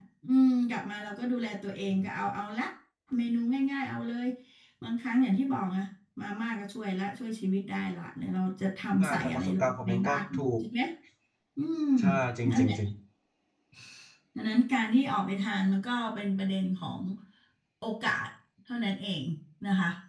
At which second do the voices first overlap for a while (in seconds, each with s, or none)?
9.0 s